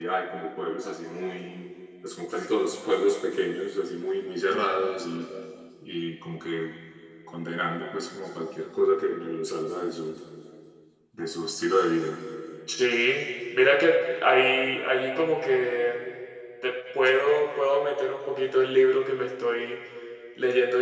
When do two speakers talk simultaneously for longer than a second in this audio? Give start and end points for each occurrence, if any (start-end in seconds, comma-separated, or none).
none